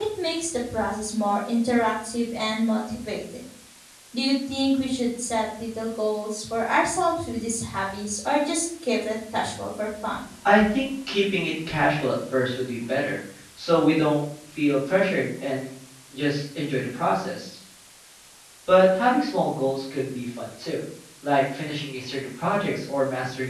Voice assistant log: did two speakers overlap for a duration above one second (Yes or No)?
No